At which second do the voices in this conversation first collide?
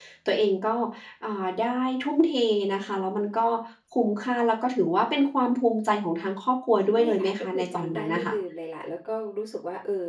6.9 s

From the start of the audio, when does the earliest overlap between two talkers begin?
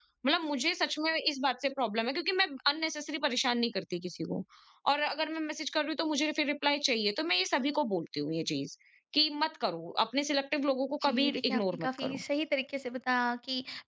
11.0 s

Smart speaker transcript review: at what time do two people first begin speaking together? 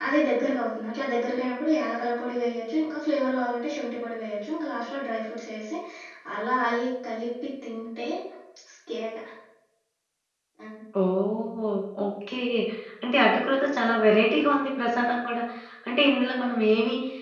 none

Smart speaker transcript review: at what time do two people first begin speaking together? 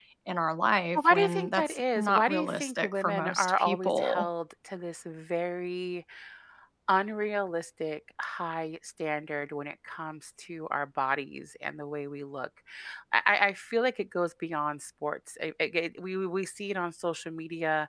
0.9 s

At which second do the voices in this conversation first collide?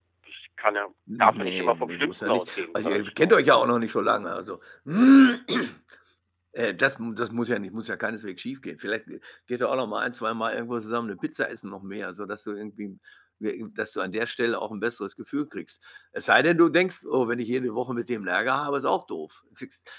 1.2 s

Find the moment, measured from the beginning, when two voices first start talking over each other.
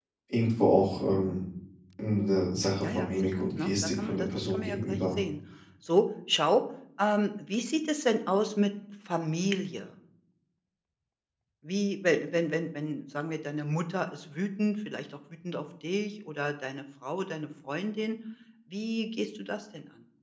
2.8 s

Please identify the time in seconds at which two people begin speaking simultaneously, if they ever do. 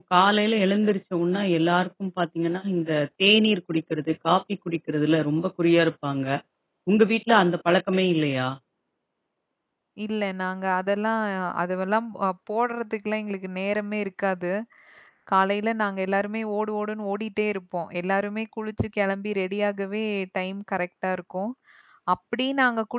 none

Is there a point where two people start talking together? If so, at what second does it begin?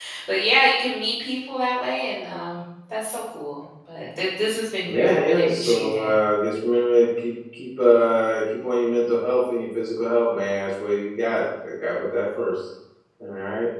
4.8 s

